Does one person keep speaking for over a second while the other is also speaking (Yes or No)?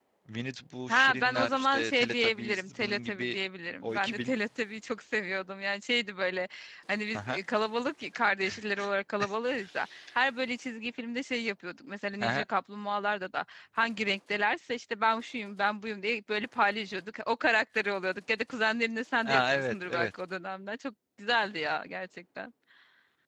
Yes